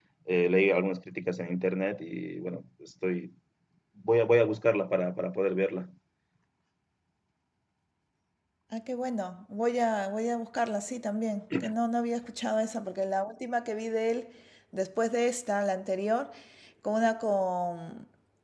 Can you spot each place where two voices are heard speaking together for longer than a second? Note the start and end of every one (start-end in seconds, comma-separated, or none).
none